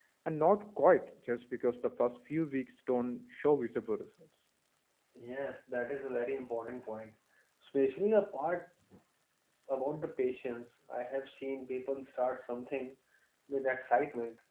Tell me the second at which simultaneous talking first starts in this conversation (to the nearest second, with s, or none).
none